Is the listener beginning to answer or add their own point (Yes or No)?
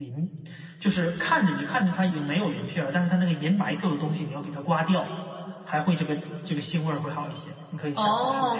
Yes